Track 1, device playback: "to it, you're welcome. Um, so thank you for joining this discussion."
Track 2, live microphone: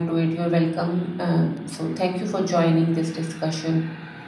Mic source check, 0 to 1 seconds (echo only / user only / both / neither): echo only